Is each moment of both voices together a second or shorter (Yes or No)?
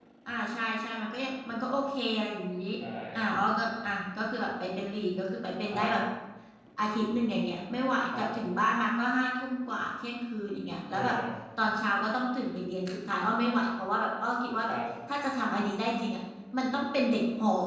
Yes